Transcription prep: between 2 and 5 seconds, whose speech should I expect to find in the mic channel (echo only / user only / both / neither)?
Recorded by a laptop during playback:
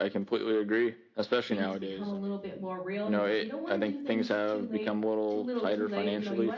both